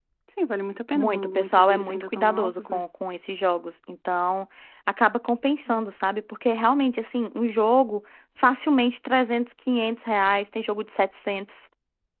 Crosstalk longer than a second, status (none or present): present